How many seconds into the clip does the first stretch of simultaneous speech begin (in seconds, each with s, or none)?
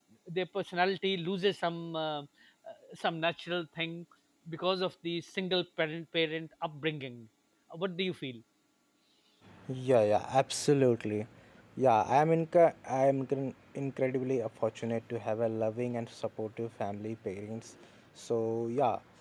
none